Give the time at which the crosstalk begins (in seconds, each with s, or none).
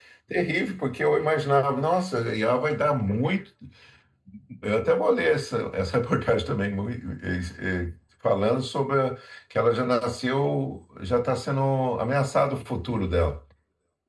none